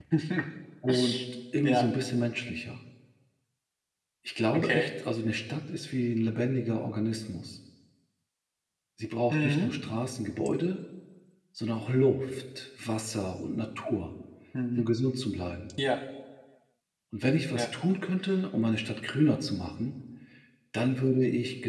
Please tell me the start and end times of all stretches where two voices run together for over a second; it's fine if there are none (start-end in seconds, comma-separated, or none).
none